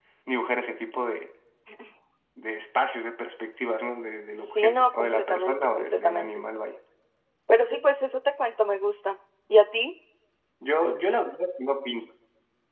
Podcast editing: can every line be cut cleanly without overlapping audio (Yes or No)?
No